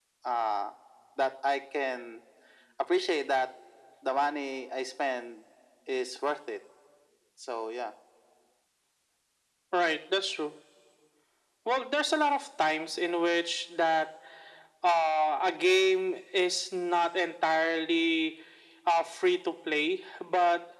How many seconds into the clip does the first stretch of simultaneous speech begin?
none

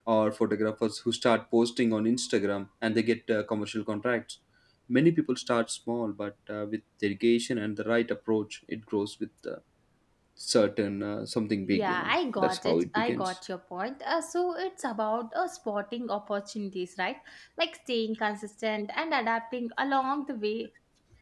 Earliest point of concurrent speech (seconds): 12 s

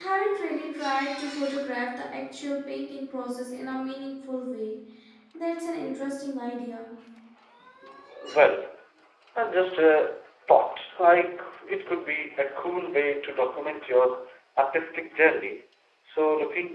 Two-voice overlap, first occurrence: none

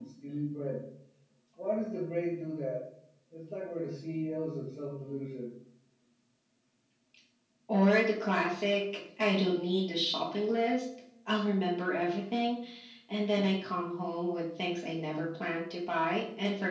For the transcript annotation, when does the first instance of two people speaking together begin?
none

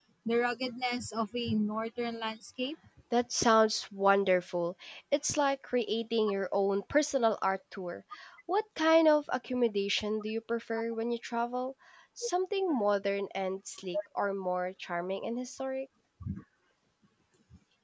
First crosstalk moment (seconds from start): none

